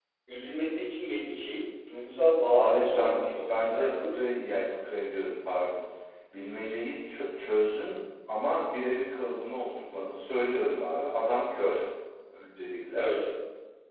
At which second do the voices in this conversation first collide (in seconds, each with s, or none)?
2.5 s